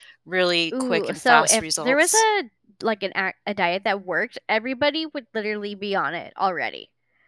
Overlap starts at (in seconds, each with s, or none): 0.9 s